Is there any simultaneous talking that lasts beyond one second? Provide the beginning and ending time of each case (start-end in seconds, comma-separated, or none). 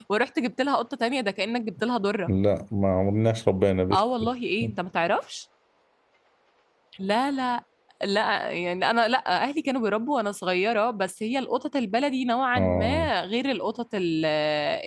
none